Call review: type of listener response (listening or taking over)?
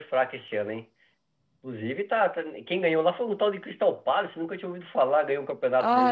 taking over